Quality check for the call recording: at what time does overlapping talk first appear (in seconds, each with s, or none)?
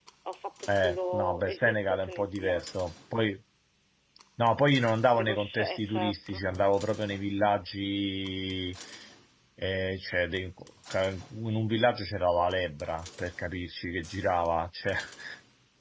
0.7 s